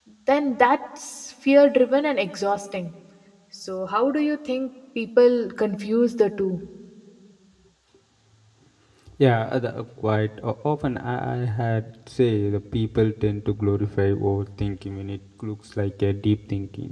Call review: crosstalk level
none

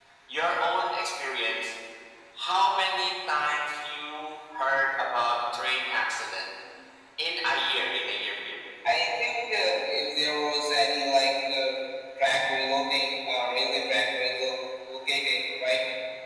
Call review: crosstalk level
none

